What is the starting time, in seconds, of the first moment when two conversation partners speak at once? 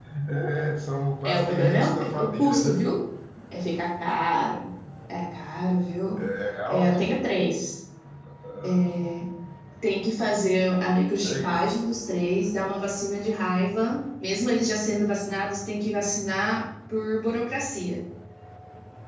1.2 s

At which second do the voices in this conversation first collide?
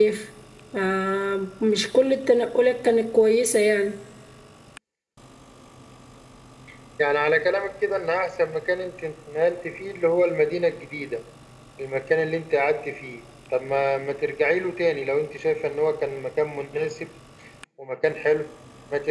none

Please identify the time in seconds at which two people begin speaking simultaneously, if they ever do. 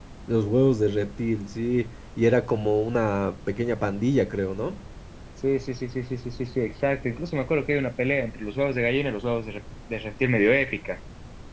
none

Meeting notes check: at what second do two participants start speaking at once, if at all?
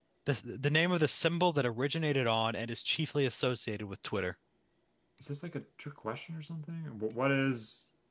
none

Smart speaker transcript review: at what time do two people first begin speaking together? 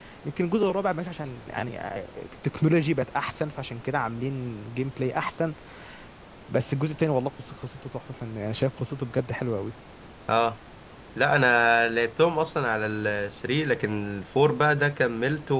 none

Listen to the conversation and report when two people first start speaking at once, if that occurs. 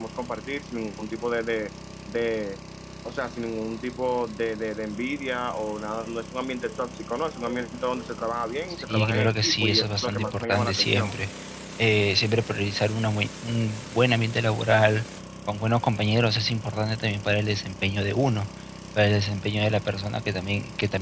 8.7 s

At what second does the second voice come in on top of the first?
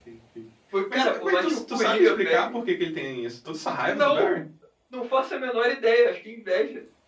0.9 s

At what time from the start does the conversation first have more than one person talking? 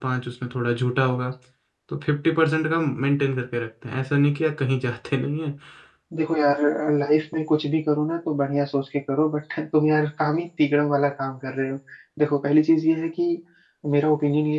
none

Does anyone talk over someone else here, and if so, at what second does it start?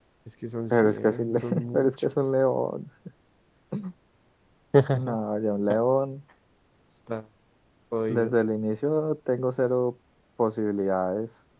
0.7 s

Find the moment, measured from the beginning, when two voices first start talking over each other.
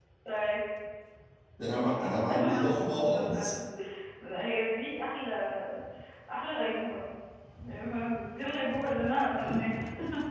2.3 s

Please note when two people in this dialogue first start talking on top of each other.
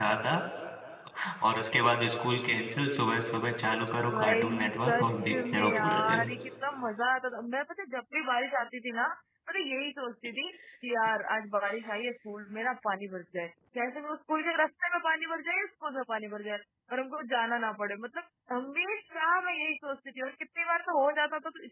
4.1 s

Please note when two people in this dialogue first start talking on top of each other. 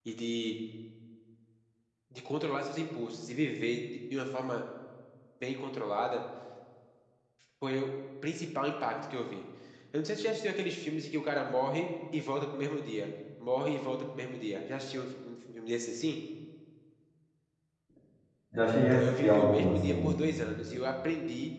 18.9 s

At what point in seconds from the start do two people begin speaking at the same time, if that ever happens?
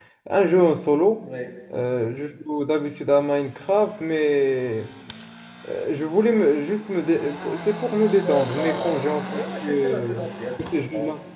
8.2 s

